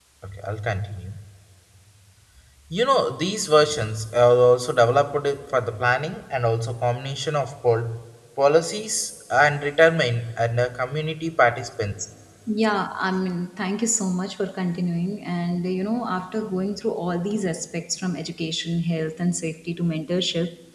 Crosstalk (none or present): none